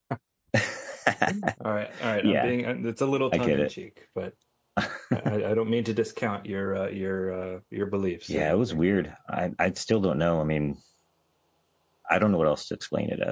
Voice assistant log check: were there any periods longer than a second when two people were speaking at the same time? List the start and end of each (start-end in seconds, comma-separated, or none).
none